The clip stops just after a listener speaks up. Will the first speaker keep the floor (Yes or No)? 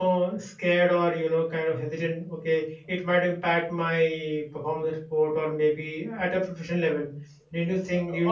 No